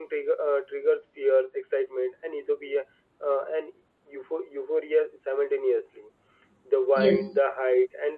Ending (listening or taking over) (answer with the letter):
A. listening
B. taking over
A